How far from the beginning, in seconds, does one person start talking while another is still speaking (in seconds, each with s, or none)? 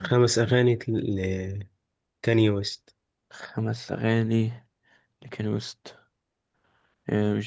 none